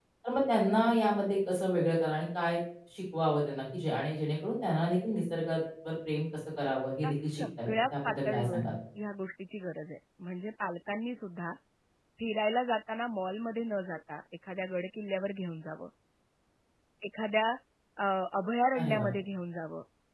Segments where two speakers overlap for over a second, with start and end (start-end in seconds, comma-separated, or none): 7.0-8.7